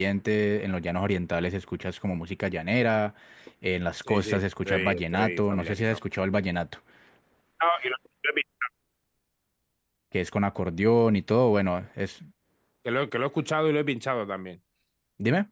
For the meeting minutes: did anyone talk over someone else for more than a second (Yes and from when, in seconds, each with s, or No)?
Yes, from 4.1 s